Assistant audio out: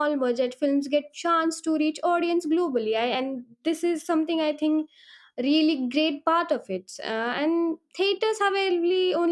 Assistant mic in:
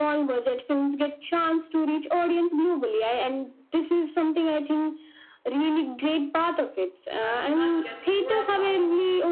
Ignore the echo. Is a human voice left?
Yes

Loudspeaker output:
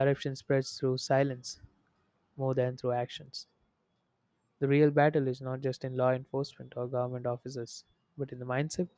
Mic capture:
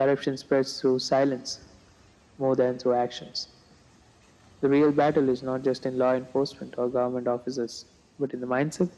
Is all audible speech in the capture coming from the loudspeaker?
Yes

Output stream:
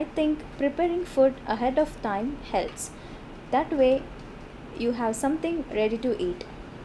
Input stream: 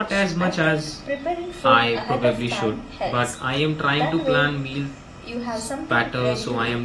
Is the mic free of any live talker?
No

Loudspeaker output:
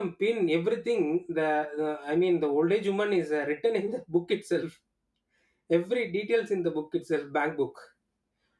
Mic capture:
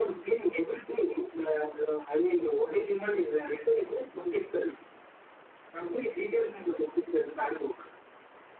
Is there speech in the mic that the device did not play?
No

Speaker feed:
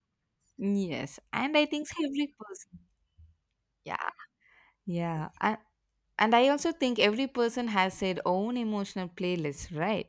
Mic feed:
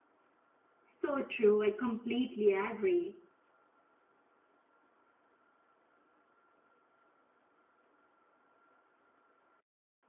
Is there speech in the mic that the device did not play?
Yes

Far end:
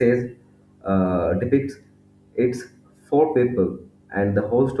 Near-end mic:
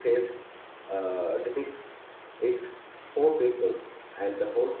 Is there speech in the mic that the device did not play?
No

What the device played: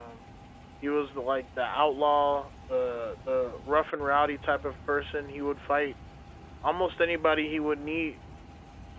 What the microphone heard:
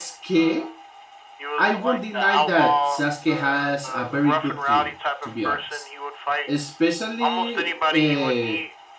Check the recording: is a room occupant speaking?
Yes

